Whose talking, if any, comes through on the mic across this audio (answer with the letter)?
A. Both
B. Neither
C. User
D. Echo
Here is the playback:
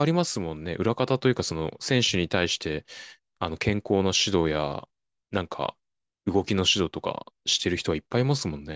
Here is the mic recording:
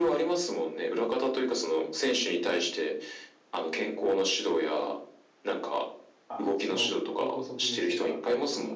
A